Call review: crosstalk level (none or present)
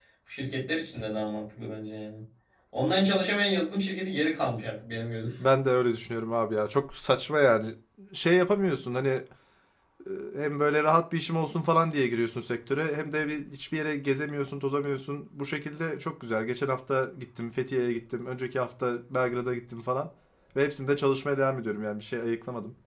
none